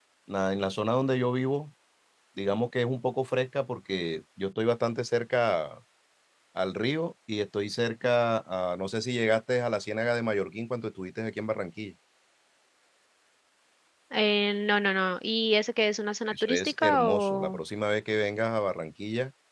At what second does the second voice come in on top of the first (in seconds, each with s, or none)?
16.3 s